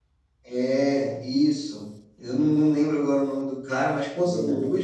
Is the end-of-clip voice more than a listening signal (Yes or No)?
No